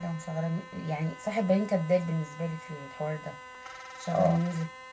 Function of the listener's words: listening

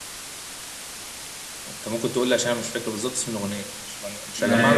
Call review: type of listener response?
taking over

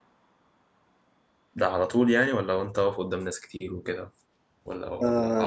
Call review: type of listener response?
taking over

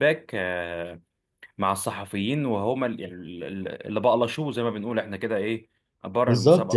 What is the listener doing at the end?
taking over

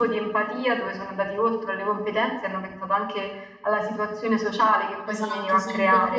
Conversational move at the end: taking over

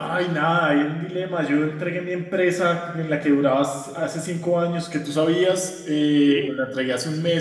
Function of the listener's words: listening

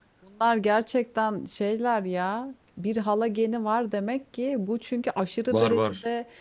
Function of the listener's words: listening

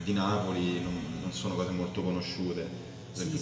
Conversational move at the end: taking over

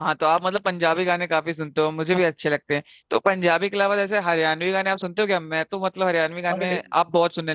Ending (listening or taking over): listening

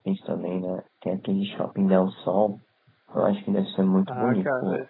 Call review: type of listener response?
taking over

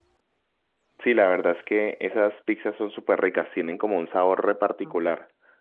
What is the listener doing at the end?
taking over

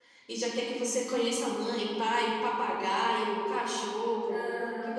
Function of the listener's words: listening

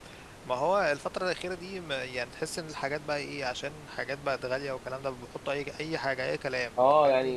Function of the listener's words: taking over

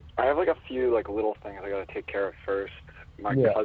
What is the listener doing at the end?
listening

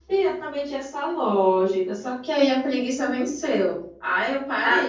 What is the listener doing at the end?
listening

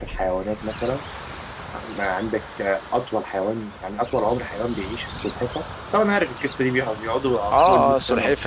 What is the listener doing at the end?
taking over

